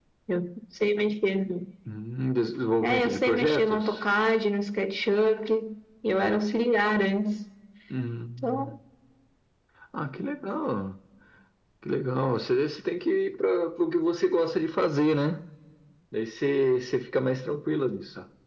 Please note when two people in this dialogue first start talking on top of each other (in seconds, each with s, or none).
2.8 s